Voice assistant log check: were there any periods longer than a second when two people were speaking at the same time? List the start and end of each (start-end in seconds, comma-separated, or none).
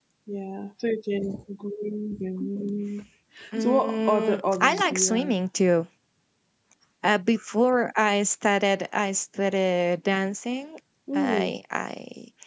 3.6-5.4